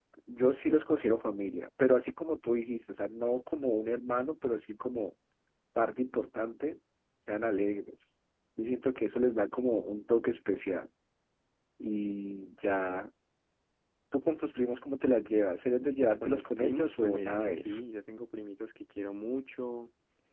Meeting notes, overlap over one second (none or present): present